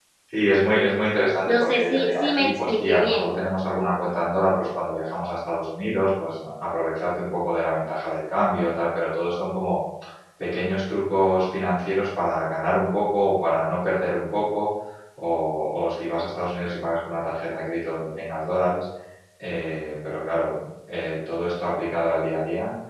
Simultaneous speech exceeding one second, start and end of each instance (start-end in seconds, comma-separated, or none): 1.5-3.4